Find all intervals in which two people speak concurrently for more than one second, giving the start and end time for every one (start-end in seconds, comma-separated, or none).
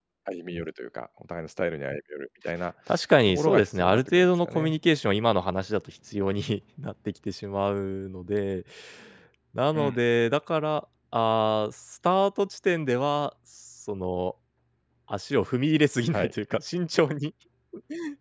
3.3-4.7